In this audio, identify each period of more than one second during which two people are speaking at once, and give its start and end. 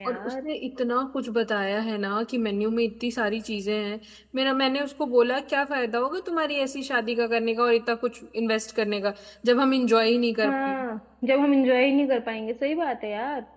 none

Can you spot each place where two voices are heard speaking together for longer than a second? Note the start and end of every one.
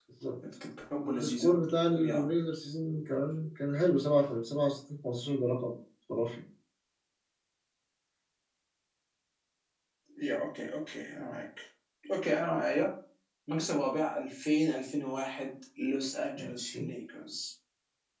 none

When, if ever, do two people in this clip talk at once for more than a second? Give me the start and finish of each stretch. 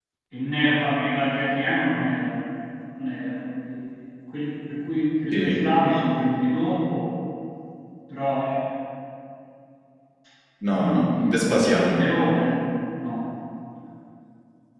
10.7-12.1

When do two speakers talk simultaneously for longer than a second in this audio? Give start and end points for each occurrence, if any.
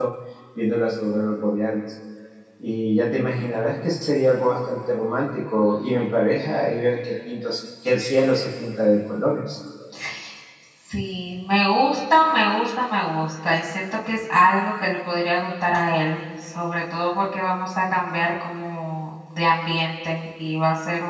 none

